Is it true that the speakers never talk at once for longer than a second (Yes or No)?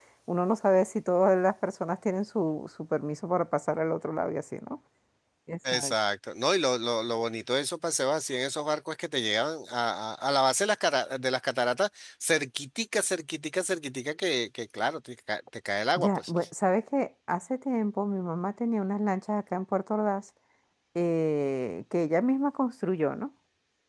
Yes